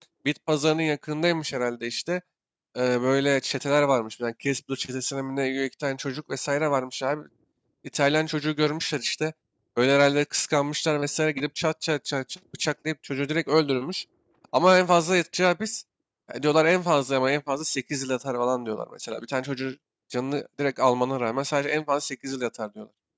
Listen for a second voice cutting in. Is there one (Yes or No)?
No